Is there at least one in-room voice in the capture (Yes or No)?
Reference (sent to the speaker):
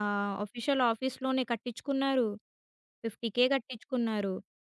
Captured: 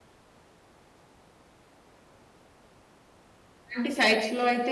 Yes